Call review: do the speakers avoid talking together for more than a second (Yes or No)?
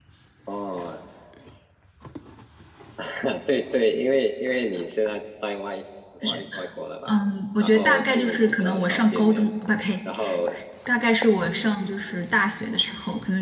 No